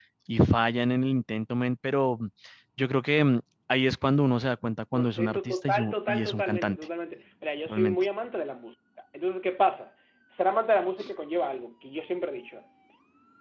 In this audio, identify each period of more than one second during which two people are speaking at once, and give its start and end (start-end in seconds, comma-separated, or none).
4.9-6.8